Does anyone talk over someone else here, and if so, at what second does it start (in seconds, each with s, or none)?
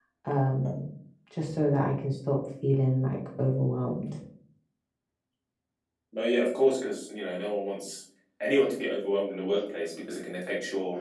none